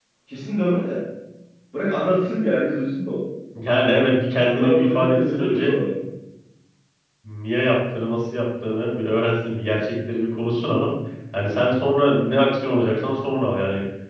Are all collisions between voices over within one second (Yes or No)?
No